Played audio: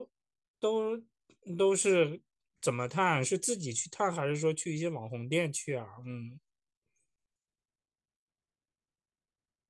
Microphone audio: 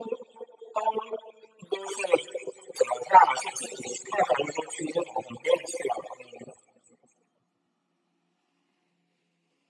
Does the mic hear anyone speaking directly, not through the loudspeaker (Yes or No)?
No